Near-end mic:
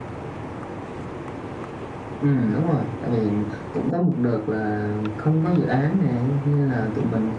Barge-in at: none

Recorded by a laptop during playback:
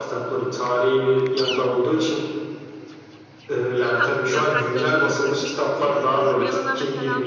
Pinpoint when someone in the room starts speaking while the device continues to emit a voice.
3.8 s

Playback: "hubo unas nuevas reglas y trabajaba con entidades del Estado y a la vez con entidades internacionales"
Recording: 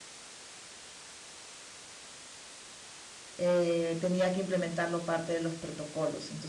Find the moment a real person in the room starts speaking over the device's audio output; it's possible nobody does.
3.4 s

